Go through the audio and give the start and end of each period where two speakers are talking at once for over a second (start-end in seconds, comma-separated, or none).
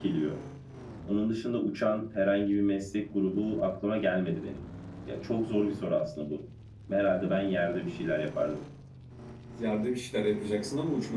none